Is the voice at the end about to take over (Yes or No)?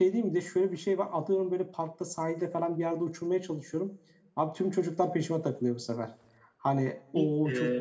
Yes